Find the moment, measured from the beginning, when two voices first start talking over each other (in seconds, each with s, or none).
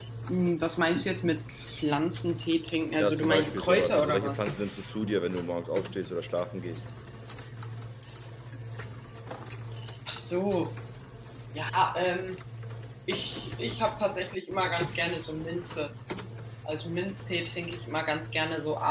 3.0 s